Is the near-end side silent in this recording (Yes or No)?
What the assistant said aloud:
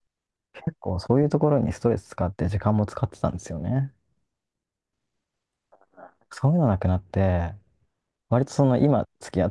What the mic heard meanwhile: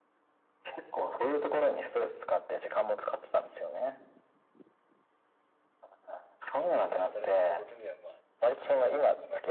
No